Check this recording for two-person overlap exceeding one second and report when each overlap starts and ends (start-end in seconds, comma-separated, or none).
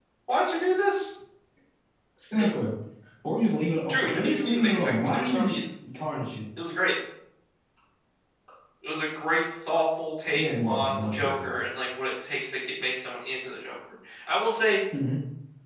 3.9-5.5, 10.3-11.6